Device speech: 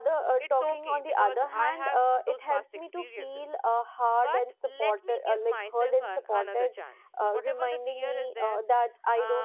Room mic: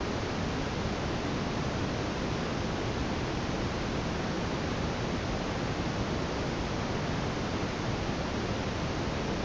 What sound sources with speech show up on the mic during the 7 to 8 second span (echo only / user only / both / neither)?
neither